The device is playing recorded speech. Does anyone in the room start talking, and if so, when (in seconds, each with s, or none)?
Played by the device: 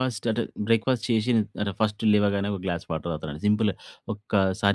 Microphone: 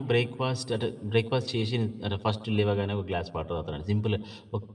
none